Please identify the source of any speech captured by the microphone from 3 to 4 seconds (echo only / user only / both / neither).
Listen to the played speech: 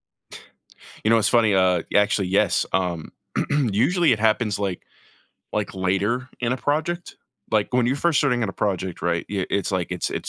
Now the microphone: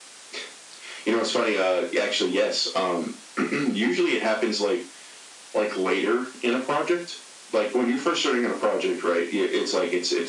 echo only